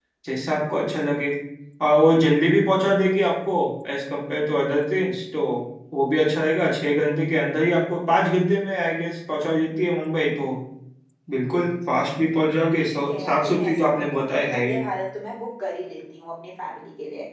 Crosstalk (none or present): present